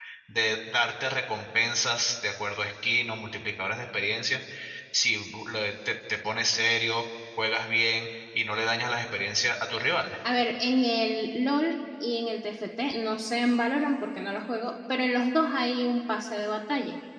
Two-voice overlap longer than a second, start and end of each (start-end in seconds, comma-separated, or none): none